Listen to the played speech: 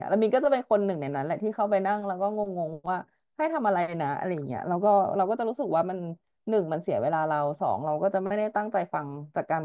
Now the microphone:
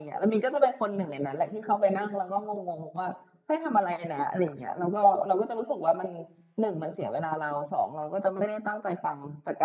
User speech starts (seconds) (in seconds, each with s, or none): none